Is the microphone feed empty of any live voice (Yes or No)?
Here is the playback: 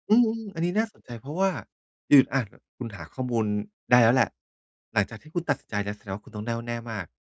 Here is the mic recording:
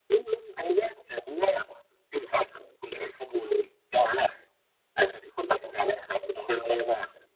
Yes